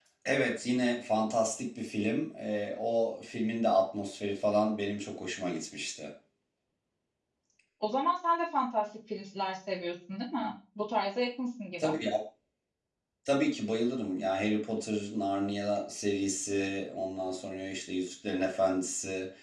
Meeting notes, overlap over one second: none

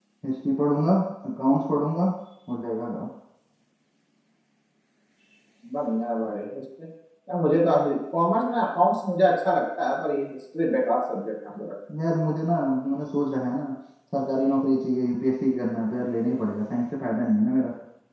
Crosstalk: none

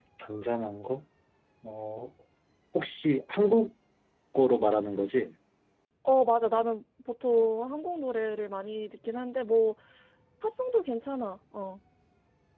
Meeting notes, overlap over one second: none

